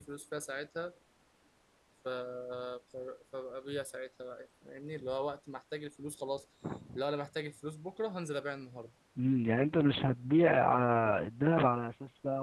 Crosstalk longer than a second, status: none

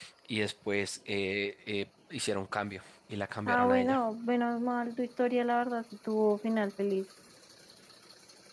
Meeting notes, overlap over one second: none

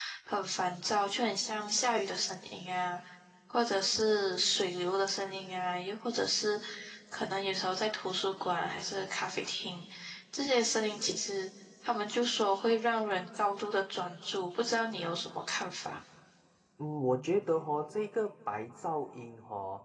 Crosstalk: none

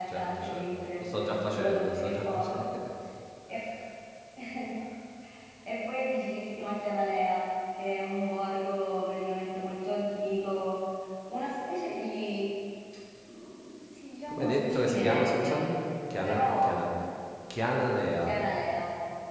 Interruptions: present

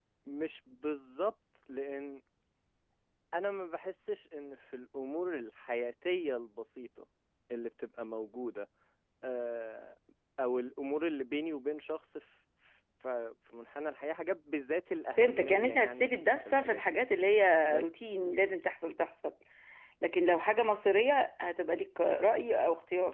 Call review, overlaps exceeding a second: present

